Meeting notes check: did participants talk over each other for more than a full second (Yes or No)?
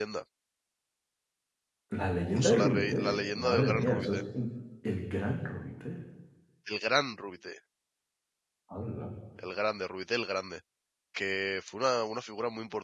Yes